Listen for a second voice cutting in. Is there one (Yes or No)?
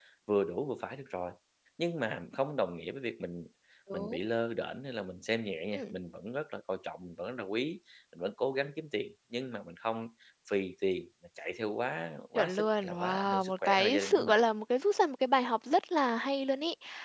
Yes